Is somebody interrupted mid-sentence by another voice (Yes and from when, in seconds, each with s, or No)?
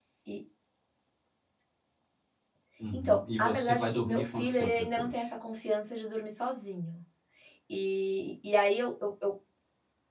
Yes, from 2.9 s